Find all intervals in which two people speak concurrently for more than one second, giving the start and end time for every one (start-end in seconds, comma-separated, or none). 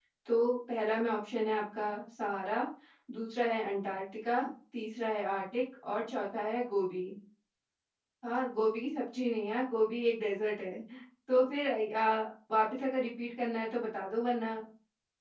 none